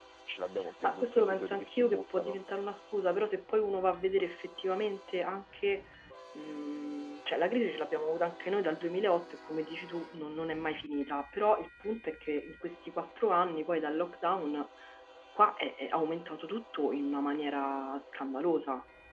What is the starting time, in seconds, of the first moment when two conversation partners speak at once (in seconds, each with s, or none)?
0.8 s